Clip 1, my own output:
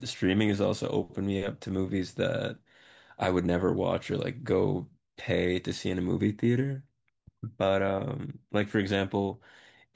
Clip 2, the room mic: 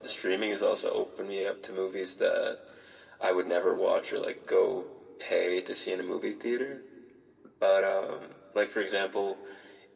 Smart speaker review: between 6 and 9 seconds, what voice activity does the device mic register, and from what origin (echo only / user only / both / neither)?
echo only